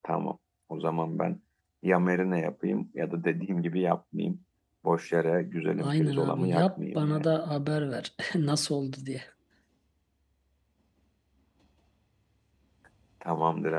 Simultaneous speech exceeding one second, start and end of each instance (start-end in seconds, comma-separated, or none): 5.8-7.3